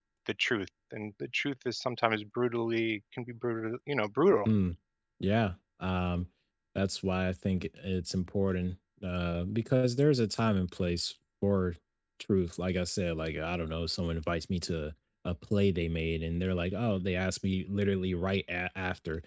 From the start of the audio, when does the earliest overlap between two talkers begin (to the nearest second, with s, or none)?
none